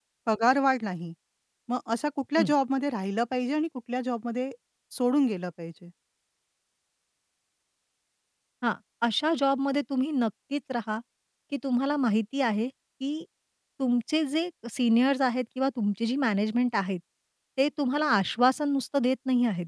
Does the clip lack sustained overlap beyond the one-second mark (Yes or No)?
Yes